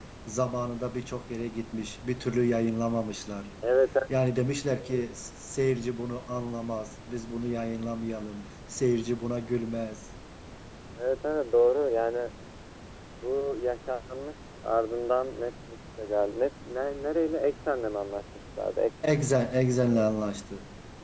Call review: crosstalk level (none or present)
none